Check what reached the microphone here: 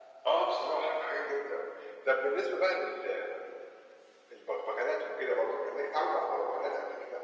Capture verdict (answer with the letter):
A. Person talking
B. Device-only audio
B